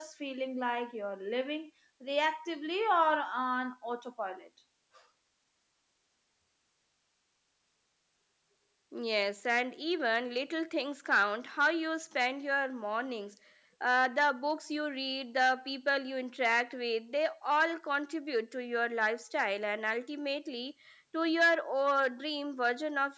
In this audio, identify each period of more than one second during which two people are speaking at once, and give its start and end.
none

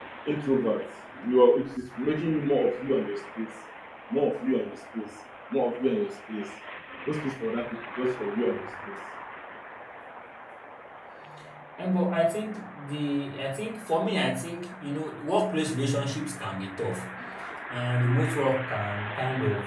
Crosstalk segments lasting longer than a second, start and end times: none

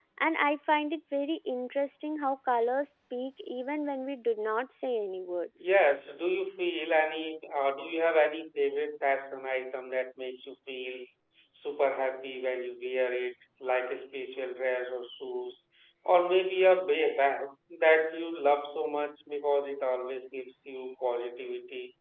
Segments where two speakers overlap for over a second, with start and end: none

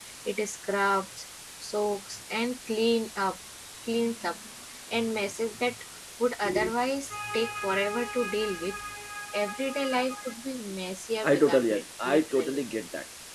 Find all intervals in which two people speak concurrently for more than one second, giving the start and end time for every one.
11.2-12.6

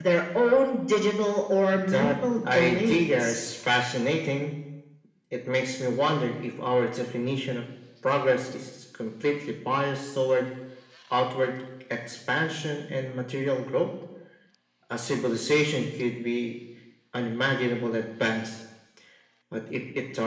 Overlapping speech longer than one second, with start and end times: 1.9-3.4

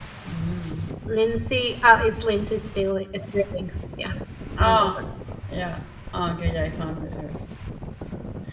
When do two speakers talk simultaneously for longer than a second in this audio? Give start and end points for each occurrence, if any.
none

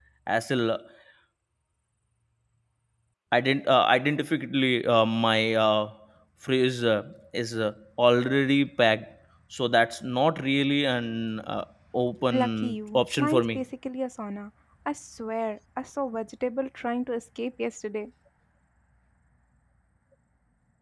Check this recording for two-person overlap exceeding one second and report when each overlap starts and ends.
12.3-13.6

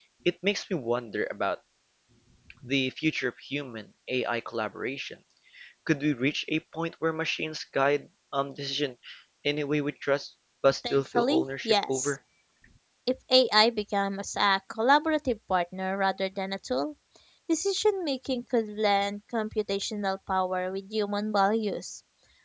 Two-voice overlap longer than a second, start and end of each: 10.9-12.2

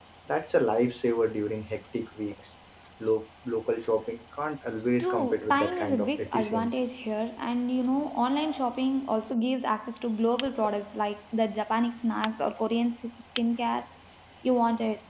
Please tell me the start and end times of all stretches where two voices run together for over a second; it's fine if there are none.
5.0-6.8

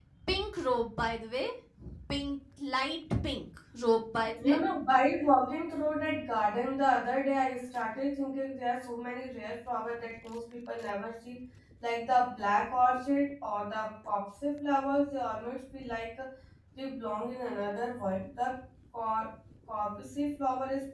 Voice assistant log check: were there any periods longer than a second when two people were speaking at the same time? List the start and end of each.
none

